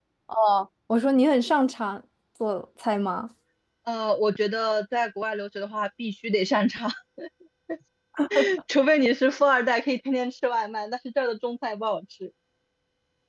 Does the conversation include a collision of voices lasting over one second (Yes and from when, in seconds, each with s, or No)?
No